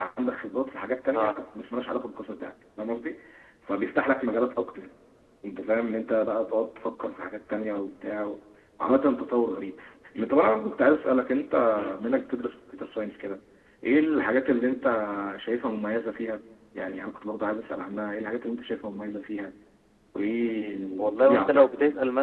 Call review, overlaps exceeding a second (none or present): present